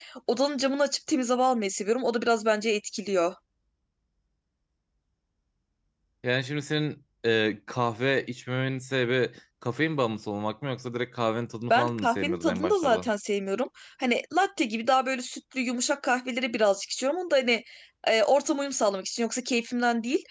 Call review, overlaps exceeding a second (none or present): present